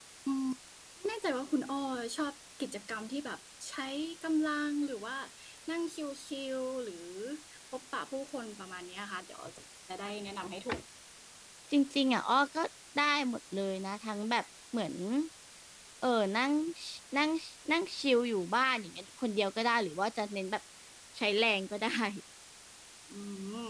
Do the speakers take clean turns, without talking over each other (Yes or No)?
Yes